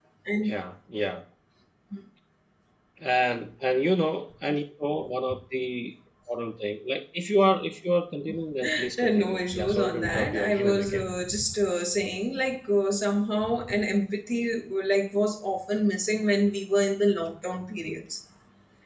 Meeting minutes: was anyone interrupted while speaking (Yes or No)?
Yes